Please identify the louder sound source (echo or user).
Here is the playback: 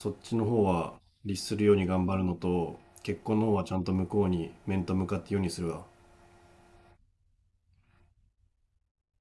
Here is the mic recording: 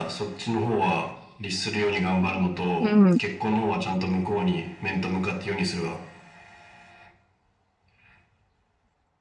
user